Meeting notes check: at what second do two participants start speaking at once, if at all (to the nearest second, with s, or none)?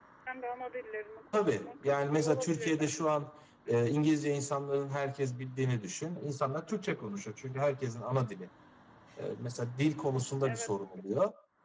1 s